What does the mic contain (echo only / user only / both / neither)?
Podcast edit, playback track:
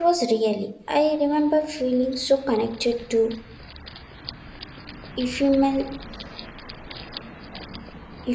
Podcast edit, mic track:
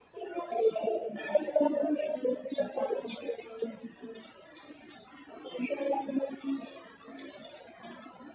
echo only